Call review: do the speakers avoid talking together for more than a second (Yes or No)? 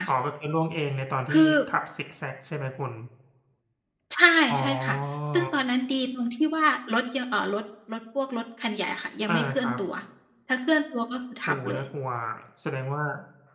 Yes